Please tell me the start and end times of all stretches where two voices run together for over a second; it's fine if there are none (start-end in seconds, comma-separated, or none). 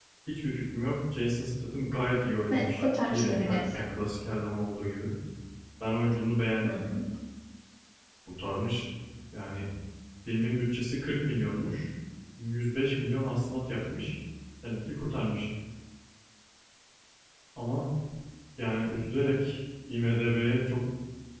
2.5-3.8